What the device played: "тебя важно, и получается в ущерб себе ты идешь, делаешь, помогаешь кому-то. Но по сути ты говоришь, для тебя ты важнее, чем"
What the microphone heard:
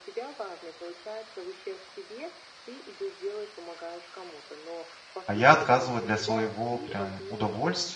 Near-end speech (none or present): present